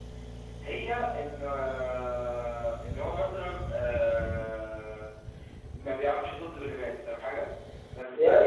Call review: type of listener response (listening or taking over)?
taking over